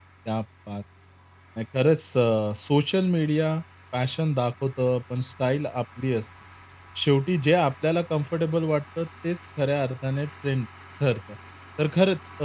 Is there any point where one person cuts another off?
No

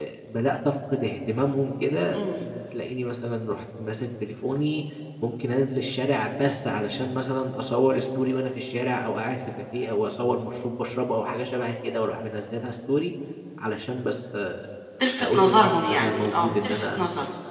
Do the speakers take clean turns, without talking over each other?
No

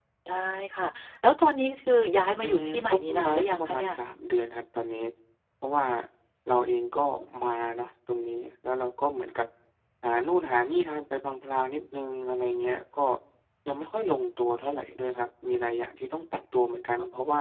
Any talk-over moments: Yes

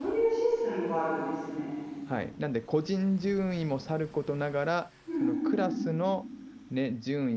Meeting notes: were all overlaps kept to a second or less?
Yes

